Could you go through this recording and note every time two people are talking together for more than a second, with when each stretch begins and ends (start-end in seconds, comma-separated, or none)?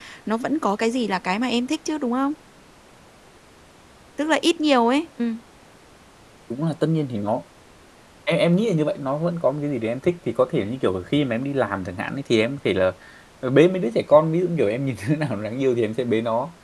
none